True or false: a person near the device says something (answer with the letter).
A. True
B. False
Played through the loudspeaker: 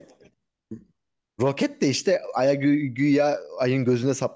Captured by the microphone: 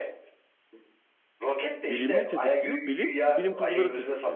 A